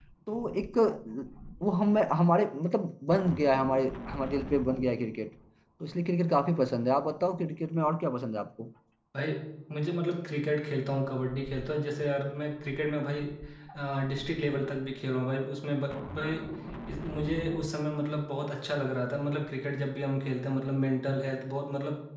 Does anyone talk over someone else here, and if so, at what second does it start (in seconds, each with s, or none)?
none